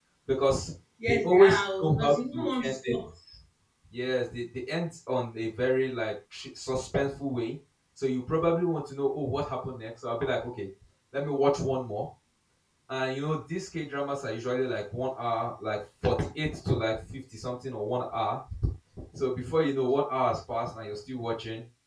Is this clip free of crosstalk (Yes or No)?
No